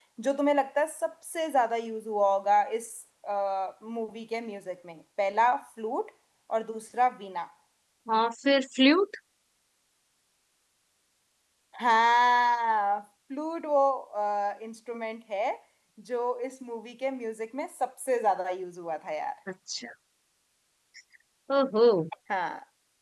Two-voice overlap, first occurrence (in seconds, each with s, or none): none